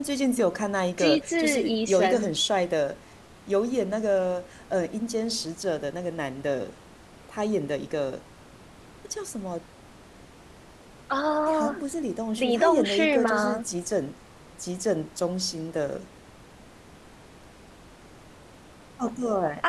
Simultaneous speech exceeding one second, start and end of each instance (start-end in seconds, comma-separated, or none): 1.0-2.3, 12.4-13.6